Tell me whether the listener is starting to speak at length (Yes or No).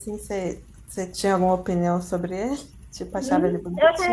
Yes